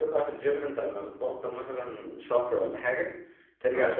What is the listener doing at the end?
listening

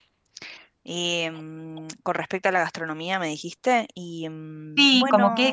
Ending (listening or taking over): taking over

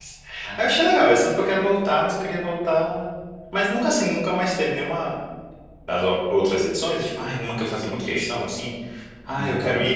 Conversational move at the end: listening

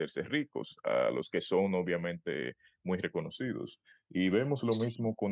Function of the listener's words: listening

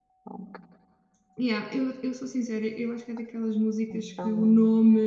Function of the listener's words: listening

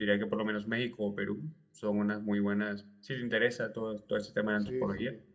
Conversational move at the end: listening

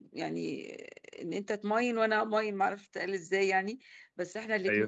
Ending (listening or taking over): listening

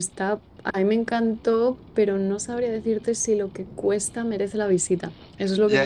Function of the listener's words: taking over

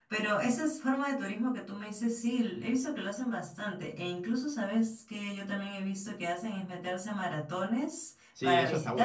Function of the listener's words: taking over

